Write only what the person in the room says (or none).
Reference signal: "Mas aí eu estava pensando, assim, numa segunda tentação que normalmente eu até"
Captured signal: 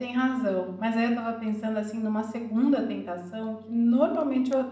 none